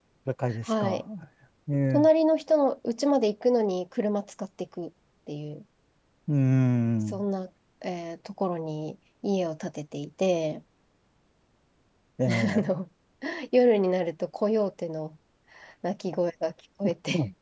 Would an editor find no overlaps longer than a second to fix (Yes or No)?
Yes